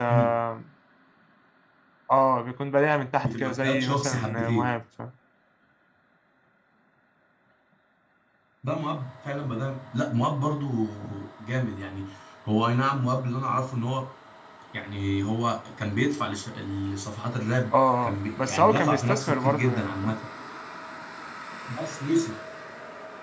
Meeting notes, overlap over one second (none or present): present